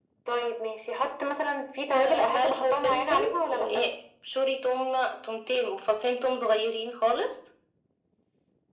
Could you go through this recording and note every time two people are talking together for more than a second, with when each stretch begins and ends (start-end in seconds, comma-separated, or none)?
2.0-3.8